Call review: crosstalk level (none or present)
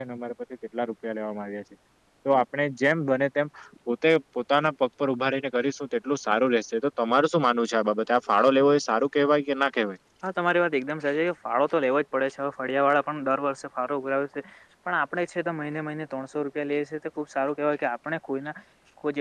none